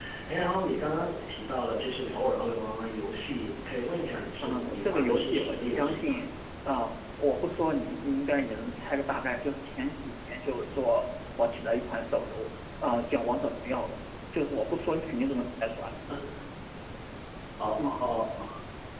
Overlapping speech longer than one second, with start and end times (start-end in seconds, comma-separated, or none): 4.4-6.2